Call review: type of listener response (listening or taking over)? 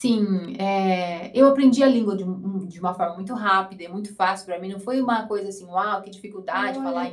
taking over